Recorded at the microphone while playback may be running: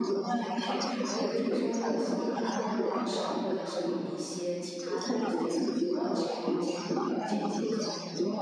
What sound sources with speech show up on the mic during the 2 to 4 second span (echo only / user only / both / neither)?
both